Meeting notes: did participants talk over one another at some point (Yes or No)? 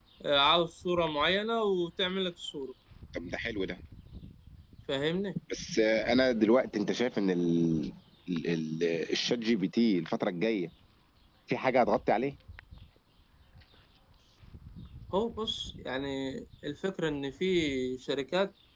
No